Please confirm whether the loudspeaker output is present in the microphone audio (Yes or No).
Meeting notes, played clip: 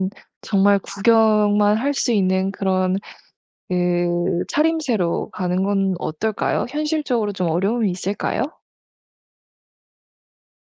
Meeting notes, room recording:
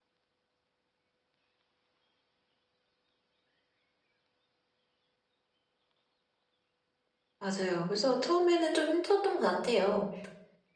No